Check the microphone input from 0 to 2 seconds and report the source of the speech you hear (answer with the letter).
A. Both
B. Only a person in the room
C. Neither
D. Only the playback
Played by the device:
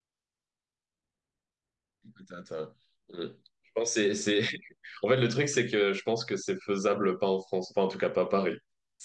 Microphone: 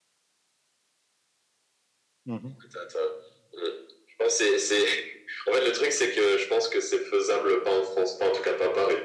C